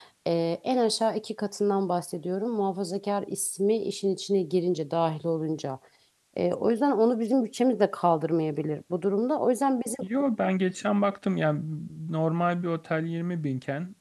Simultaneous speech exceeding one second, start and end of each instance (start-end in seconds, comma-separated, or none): none